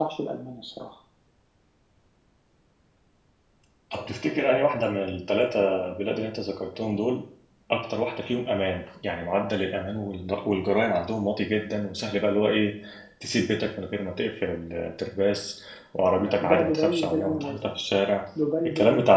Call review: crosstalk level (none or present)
present